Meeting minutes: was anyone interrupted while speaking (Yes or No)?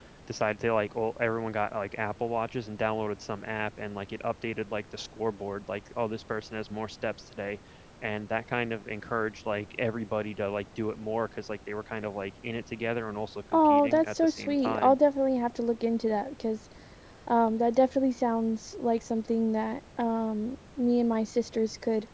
Yes